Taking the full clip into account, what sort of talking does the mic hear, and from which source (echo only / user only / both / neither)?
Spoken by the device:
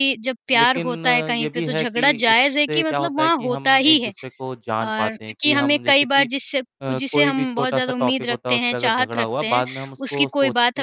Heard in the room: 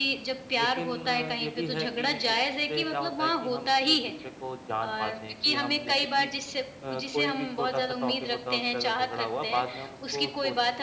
echo only